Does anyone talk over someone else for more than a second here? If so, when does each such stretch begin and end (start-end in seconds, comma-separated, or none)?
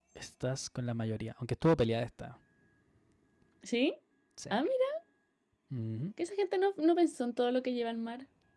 none